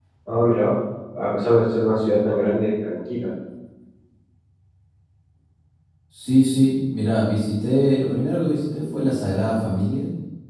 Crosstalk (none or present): none